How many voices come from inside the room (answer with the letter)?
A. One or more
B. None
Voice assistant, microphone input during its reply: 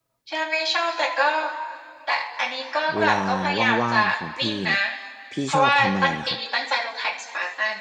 A